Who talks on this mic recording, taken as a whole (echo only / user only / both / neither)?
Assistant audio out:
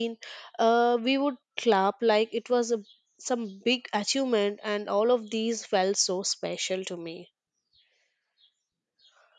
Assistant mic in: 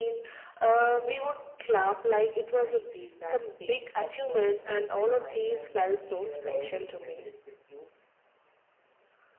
both